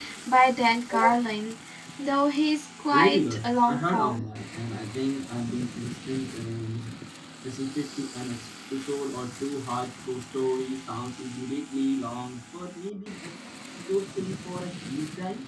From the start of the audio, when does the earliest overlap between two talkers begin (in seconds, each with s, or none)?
2.9 s